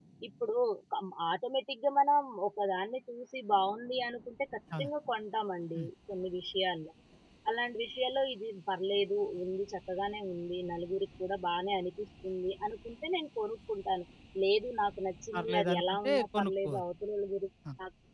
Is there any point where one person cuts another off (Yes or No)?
Yes